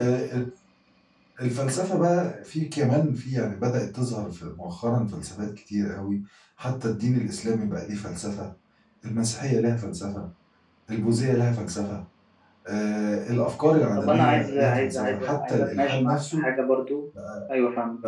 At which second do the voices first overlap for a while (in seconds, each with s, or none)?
14.0 s